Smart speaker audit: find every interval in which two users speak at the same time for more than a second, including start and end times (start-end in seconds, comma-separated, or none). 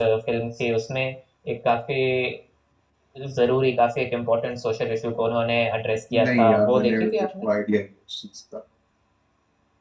6.1-7.5